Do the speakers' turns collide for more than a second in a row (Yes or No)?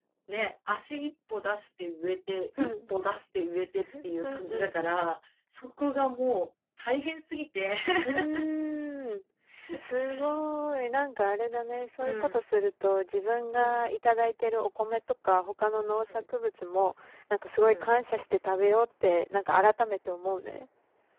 No